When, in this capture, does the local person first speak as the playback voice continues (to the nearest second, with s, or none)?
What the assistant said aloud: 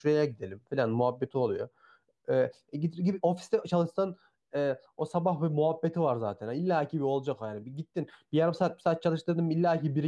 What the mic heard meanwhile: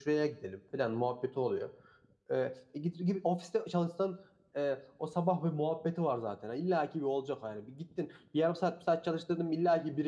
none